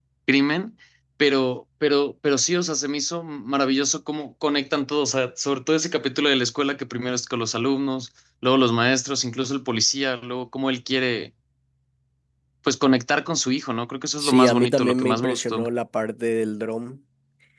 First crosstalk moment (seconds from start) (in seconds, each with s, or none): 14.2 s